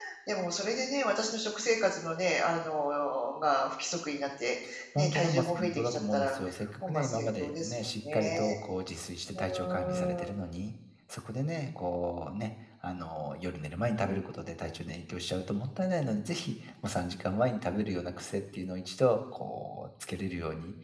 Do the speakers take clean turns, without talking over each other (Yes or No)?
No